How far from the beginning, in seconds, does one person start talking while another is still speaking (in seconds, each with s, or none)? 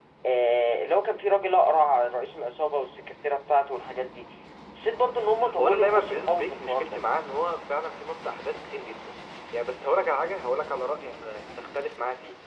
5.6 s